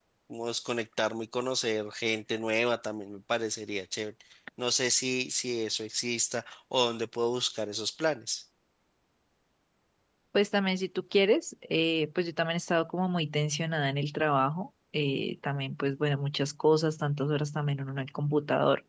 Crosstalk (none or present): none